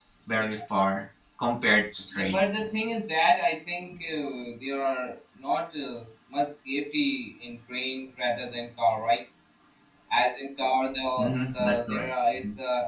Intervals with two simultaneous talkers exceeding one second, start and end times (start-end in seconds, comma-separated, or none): none